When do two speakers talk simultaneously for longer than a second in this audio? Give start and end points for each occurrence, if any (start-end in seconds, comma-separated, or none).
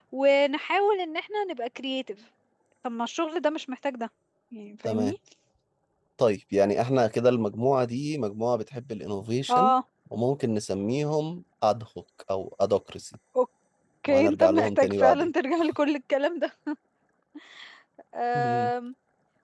14.1-15.3